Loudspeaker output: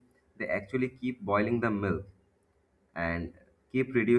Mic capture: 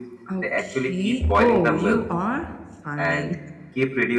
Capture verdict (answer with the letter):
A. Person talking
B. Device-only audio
A